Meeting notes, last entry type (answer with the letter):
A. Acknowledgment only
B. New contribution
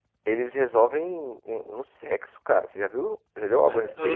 B